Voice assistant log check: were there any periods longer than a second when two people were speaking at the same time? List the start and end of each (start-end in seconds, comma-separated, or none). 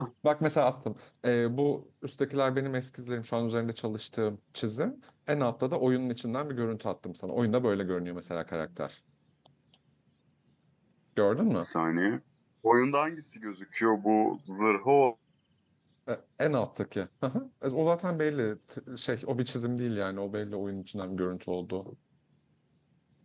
none